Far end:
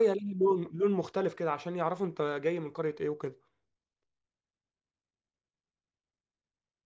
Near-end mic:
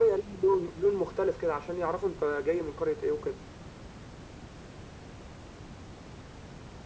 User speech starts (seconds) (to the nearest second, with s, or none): none